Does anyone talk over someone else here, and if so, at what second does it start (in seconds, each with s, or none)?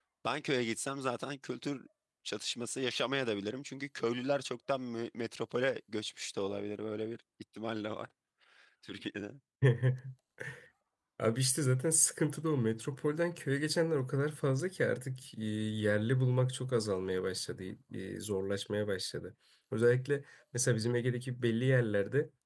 none